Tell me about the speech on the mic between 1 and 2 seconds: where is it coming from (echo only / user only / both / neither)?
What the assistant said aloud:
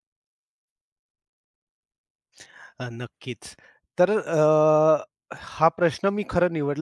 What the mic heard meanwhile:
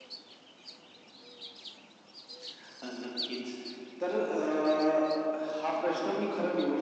neither